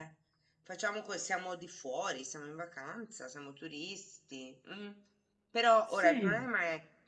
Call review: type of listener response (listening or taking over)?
listening